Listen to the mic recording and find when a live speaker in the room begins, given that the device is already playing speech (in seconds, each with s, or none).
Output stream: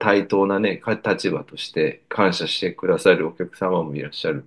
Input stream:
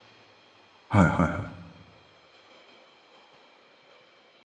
0.9 s